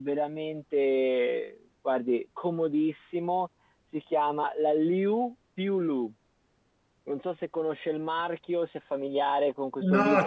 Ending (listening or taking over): taking over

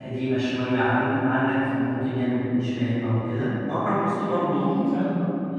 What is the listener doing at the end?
listening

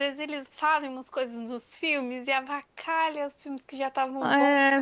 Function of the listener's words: taking over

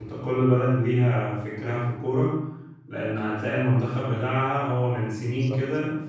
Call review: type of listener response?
listening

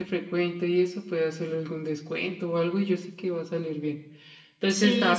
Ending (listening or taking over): listening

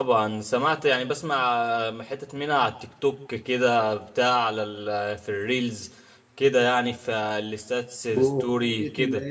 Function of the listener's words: taking over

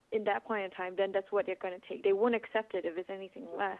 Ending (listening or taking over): listening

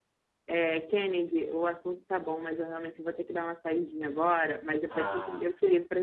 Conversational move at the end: listening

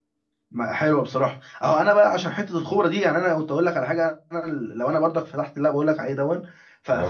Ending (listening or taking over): listening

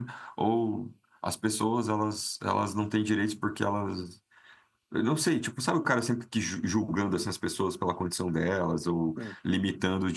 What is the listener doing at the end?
listening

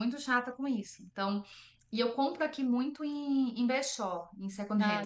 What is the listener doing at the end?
listening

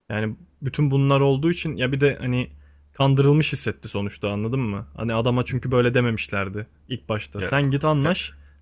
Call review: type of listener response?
listening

